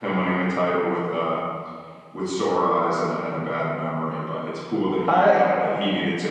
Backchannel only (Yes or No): Yes